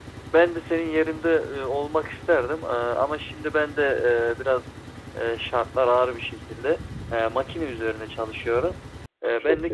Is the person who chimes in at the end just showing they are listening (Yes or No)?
Yes